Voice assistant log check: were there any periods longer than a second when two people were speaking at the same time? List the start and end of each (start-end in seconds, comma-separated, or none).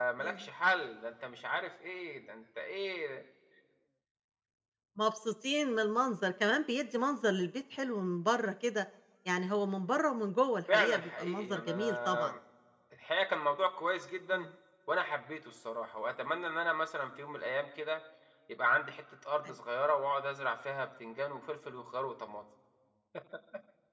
10.7-12.3